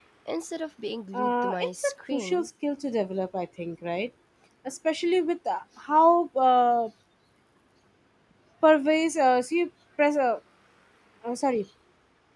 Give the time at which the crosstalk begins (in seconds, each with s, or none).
1.1 s